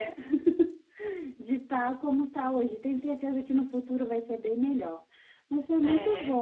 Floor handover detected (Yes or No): No